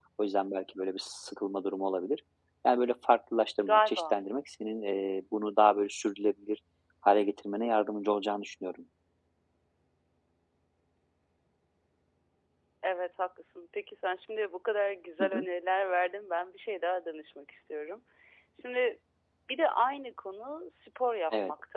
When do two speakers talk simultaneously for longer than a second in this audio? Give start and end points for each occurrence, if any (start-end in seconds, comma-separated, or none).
none